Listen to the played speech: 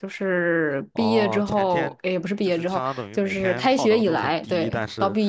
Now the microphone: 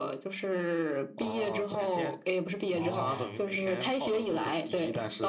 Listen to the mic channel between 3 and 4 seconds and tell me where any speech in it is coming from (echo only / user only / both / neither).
both